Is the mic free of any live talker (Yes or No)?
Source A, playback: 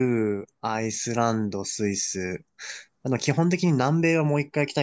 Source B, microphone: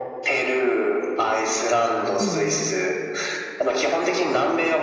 No